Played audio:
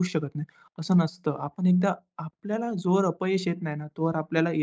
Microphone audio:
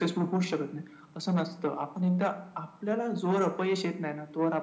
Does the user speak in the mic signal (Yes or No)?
No